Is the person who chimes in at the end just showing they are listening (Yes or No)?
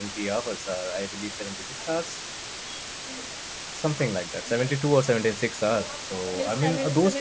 No